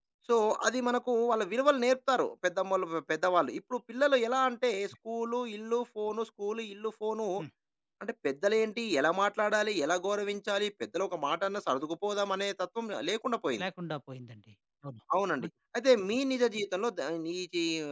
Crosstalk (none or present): none